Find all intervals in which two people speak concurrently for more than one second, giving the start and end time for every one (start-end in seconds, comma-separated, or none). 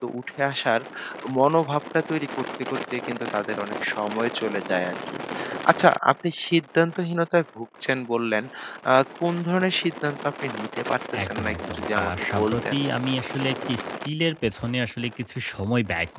11.2-12.8